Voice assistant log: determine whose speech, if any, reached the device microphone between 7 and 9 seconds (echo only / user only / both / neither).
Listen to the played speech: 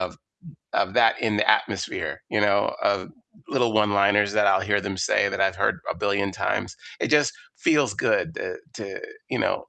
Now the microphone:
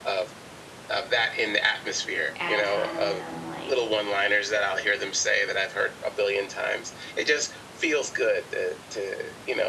echo only